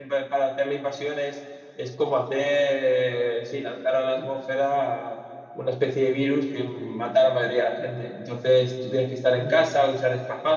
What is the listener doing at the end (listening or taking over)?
listening